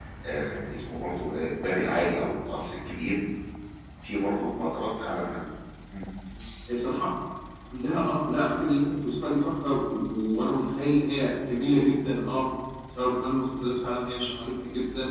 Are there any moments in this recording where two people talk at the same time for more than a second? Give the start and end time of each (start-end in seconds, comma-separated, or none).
none